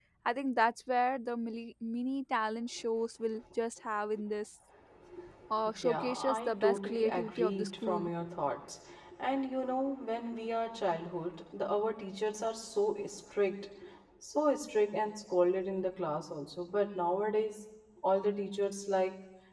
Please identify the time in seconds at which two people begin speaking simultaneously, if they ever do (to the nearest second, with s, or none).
6 s